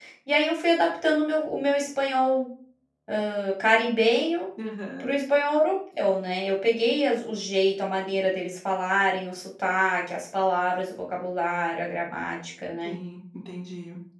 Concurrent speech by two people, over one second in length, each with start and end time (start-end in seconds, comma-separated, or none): none